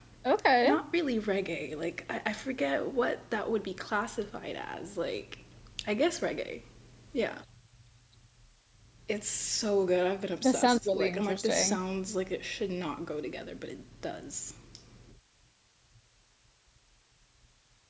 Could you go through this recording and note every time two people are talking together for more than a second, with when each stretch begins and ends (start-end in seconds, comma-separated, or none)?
10.4-11.8